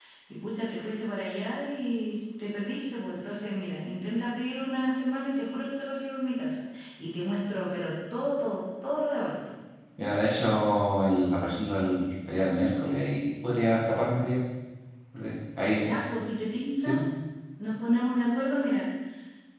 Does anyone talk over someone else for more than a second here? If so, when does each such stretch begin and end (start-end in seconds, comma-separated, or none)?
none